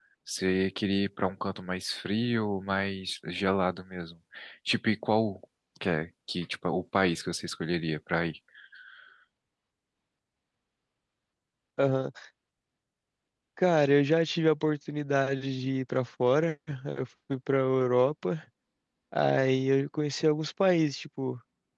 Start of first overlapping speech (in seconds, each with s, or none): none